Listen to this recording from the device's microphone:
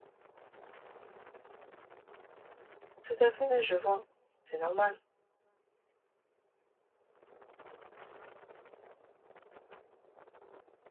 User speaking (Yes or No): Yes